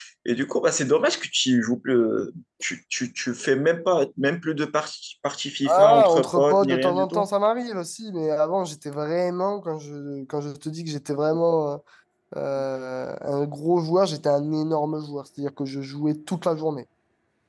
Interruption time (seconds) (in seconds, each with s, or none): 5.7 s